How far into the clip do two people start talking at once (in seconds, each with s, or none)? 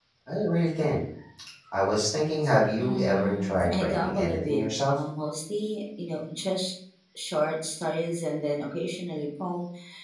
2.8 s